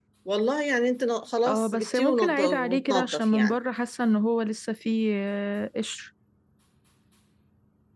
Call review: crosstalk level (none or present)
present